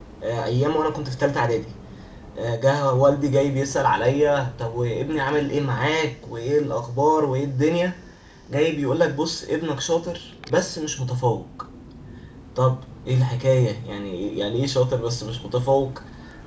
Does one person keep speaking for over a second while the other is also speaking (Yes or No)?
No